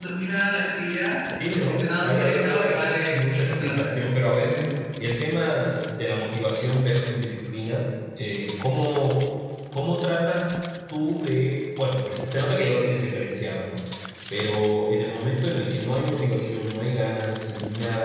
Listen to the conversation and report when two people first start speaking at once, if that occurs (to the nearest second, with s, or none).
1 s